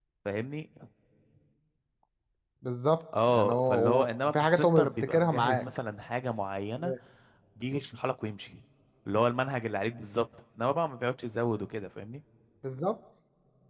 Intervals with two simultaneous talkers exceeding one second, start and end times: 3.3-5.6

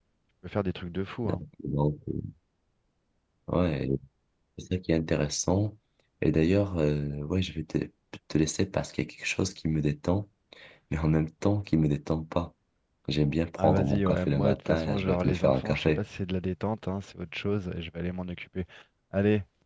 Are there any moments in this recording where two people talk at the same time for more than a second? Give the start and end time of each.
13.6-16.0

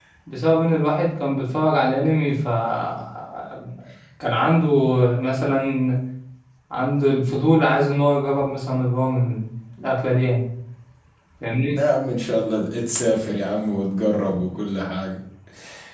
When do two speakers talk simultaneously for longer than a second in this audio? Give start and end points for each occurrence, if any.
none

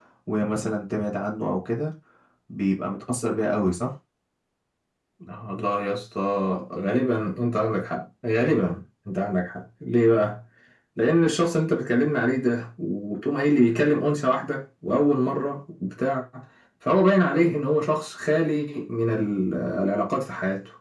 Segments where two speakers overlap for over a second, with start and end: none

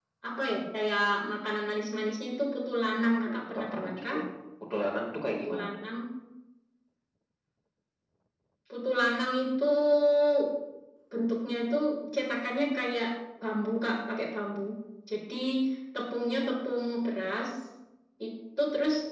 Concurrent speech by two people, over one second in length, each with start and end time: 3.0-4.2

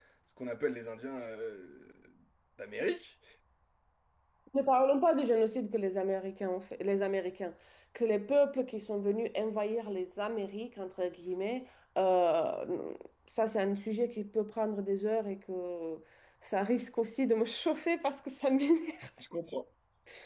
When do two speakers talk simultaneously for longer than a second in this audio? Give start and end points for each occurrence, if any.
none

